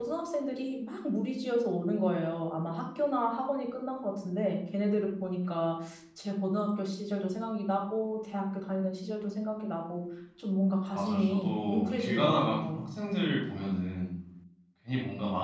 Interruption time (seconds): 11 s

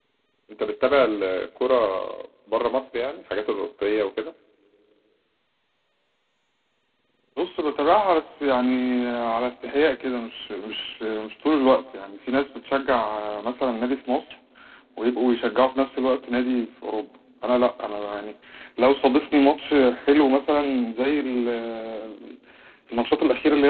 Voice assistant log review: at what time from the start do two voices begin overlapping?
none

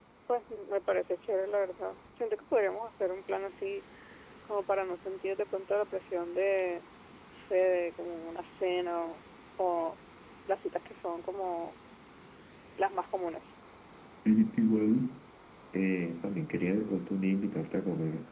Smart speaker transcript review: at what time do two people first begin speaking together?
none

